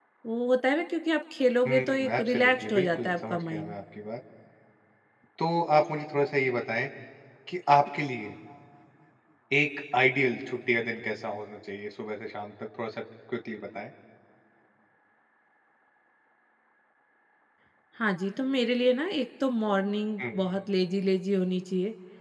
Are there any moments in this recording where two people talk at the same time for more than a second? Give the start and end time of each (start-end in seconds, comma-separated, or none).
1.7-3.7